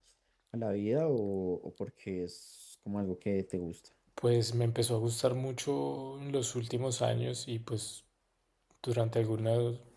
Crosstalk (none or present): none